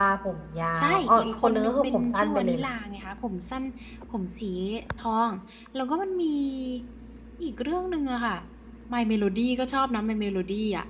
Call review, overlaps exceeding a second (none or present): present